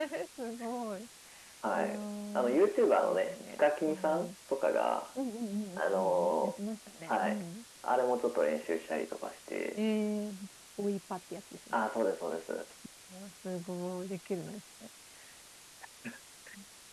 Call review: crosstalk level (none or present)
present